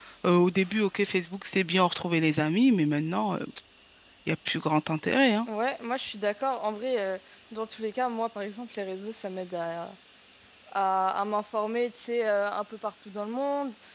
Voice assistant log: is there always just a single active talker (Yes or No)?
Yes